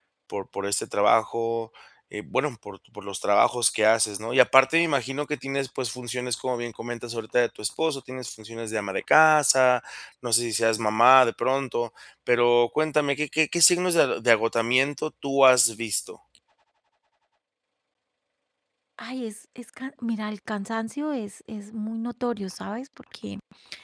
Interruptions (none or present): none